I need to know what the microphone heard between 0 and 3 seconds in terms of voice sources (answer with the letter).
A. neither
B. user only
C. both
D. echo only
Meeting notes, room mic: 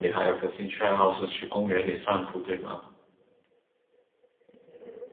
B